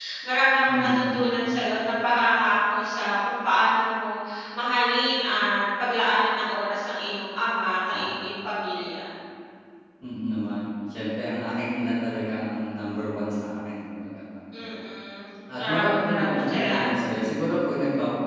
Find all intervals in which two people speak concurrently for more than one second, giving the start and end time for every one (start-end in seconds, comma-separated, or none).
15.6-17.1